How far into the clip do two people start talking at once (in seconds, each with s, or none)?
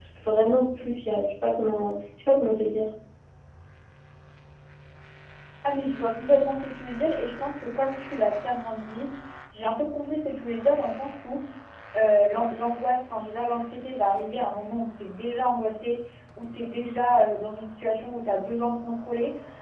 none